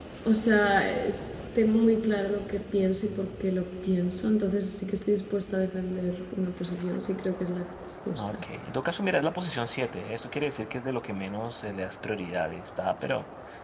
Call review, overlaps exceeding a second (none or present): none